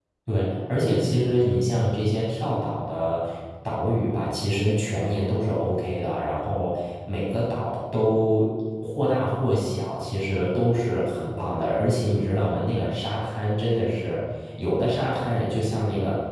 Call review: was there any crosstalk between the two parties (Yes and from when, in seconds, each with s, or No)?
No